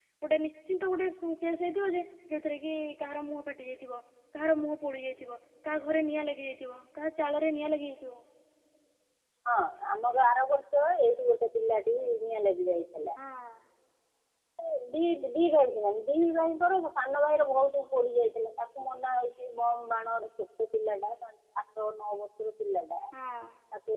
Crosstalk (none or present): none